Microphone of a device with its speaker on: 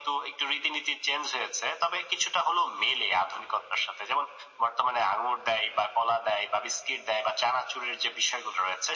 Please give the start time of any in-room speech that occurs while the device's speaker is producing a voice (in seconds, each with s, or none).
none